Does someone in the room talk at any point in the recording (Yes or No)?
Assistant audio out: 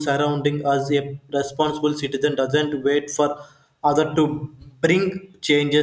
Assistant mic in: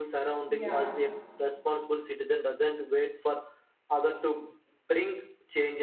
Yes